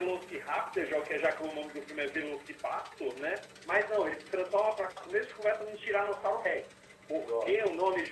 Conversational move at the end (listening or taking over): listening